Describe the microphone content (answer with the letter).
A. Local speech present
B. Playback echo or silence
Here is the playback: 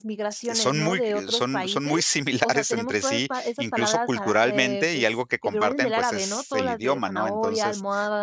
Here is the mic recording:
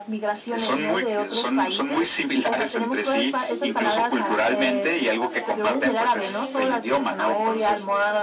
A